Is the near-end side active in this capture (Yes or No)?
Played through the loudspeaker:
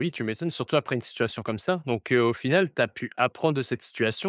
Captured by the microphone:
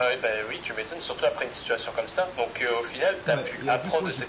Yes